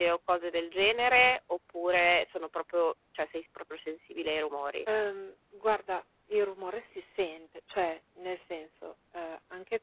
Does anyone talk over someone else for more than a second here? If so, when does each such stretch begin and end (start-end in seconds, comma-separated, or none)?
none